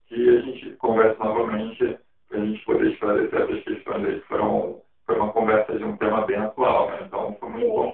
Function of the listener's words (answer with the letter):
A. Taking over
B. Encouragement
A